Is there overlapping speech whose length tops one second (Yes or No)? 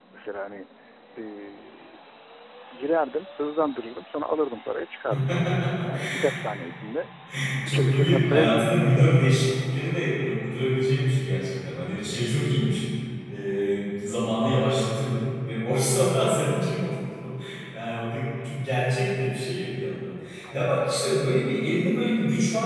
Yes